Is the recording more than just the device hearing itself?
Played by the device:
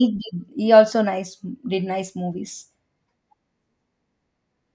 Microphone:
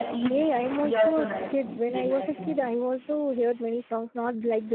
Yes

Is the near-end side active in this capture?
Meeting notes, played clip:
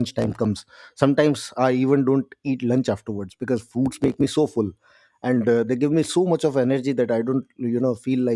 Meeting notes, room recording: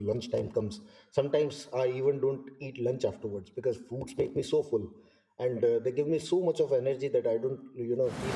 No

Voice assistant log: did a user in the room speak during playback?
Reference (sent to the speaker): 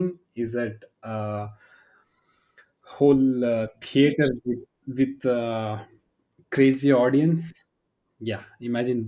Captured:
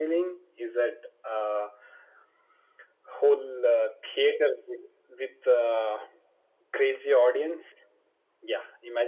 No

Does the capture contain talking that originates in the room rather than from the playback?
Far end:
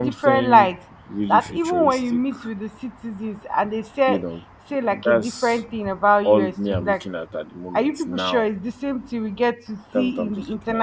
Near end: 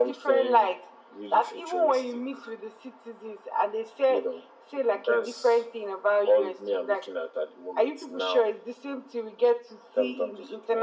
No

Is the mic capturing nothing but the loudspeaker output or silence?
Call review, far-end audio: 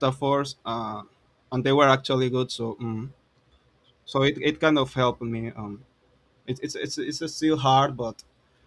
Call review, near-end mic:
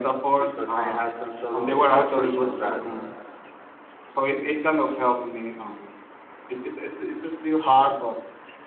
No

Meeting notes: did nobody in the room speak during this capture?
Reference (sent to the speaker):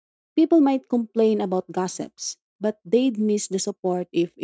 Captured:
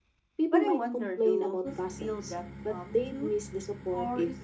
No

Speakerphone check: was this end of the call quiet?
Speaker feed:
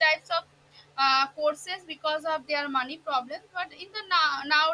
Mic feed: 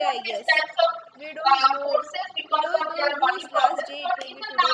No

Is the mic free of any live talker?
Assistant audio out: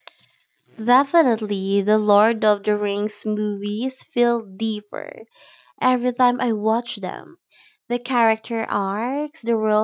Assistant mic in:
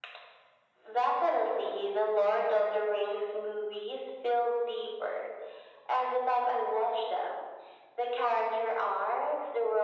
Yes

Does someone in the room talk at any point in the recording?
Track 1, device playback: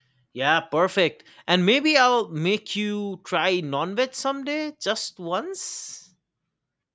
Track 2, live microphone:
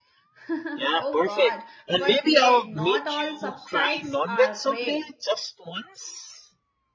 Yes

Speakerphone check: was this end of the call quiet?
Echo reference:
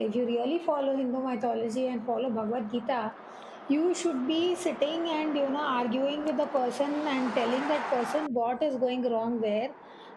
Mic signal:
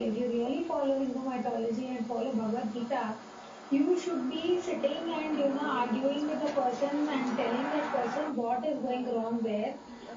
No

